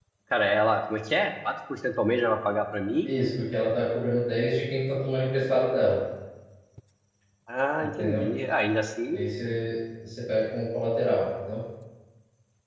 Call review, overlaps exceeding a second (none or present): none